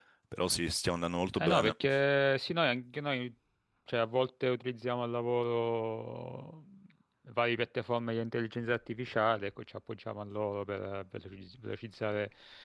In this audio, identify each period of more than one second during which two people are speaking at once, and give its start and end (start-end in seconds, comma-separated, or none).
none